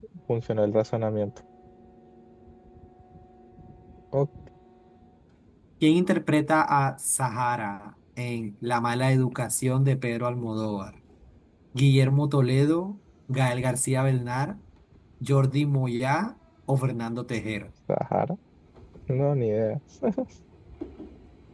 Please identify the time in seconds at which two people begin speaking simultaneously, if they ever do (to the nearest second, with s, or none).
none